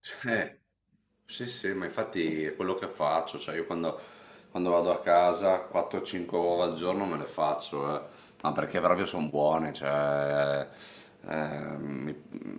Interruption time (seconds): none

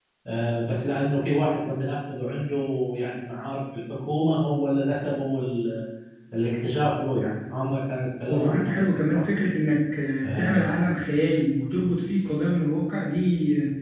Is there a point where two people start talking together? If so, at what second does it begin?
8.3 s

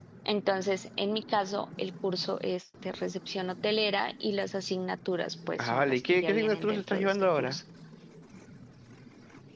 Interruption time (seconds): 5.6 s

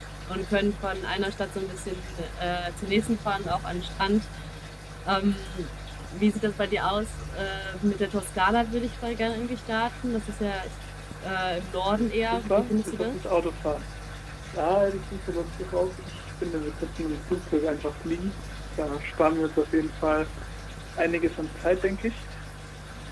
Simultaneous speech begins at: 11.9 s

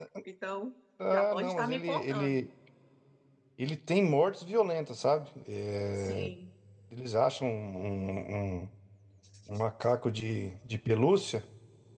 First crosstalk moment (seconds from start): 1.1 s

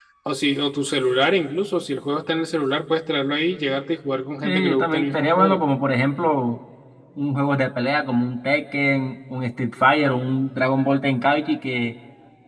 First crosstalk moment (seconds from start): 4.4 s

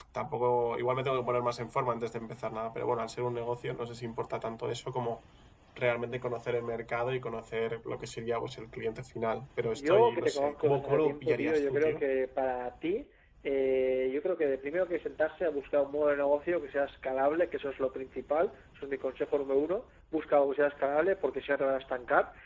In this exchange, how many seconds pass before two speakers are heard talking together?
9.8 s

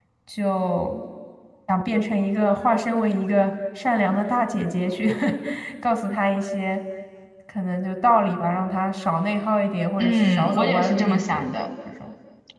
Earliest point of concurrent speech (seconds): 10.0 s

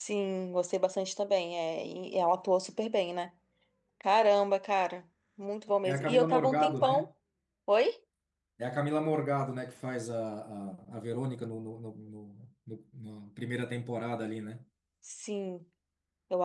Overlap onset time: 5.8 s

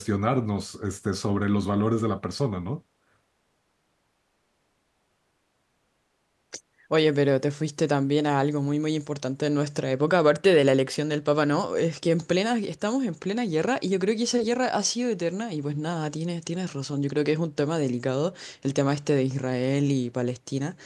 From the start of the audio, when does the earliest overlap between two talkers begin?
none

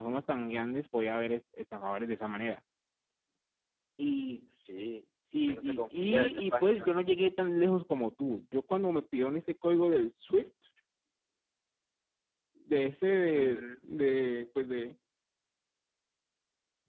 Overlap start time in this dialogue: 5.5 s

